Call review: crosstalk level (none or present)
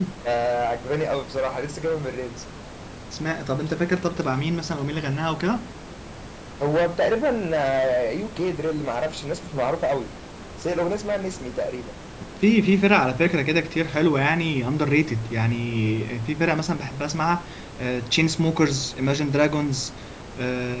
none